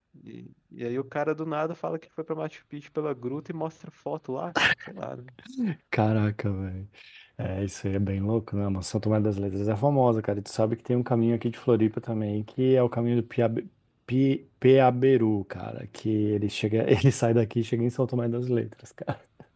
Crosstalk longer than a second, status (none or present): none